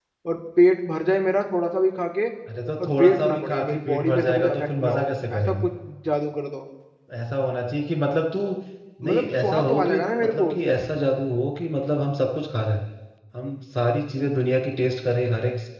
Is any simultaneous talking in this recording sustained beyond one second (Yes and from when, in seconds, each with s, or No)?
Yes, from 2.8 s